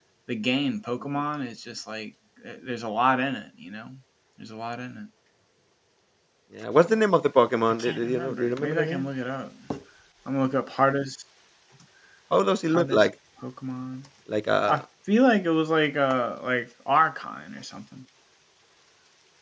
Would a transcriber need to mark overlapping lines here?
Yes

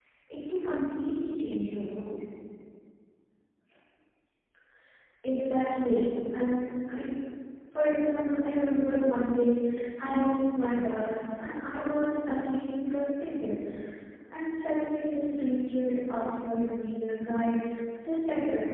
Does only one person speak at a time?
Yes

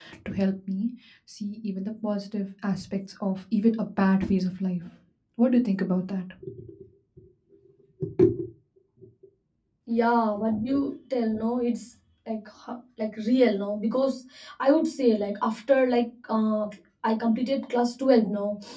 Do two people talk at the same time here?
No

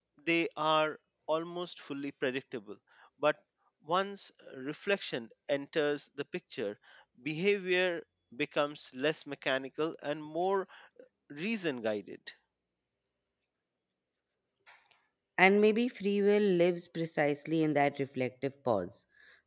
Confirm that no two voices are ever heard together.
Yes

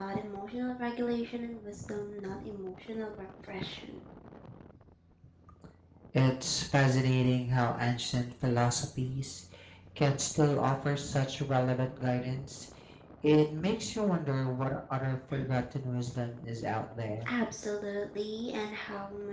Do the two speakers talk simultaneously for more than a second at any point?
No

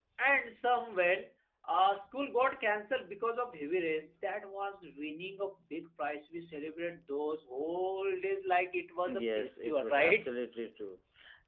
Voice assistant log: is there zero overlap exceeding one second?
No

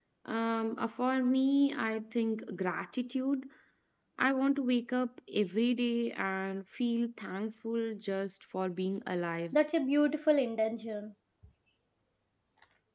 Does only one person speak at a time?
Yes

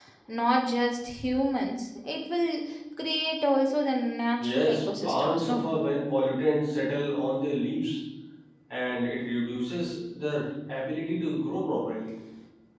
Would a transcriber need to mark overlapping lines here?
Yes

